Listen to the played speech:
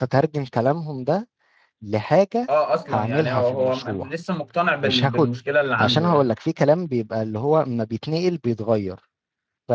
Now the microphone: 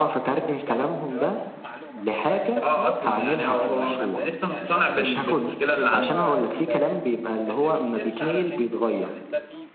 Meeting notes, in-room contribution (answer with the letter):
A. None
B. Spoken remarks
B